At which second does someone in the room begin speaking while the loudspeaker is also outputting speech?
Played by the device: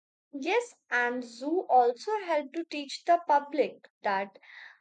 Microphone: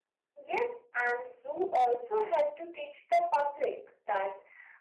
none

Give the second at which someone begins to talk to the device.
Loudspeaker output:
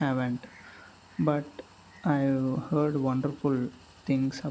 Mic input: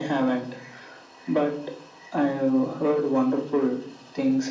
none

